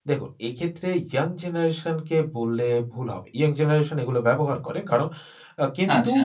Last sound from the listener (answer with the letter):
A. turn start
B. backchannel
B